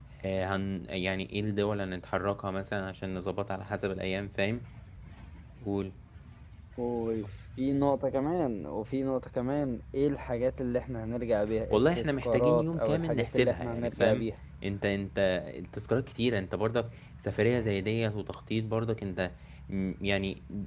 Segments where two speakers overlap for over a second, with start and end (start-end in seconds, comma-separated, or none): 11.7-14.2